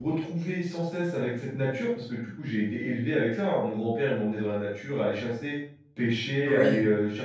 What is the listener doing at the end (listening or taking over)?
listening